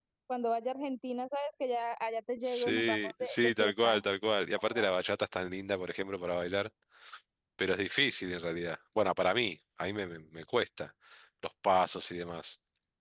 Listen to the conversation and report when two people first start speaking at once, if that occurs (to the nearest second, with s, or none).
2 s